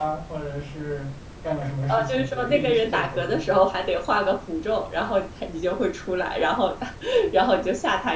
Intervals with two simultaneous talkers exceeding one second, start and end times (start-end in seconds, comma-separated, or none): 1.9-3.5